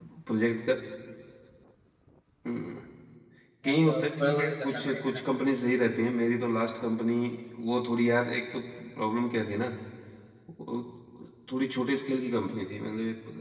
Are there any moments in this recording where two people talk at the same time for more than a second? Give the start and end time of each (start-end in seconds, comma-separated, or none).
3.6-5.2